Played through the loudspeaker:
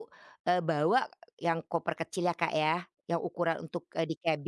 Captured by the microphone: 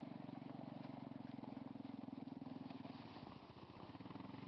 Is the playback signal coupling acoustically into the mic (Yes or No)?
No